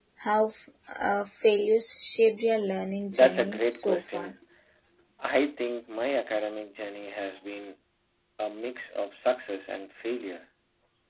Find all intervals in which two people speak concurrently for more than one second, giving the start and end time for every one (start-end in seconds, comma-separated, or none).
3.1-4.3